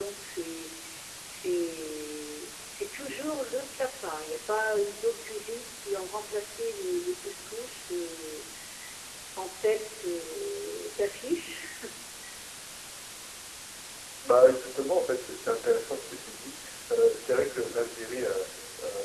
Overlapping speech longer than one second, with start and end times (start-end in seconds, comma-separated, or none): none